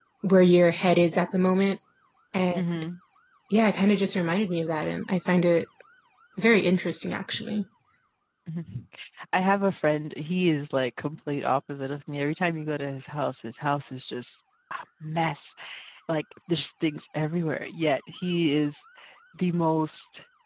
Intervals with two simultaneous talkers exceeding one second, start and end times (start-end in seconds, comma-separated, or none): none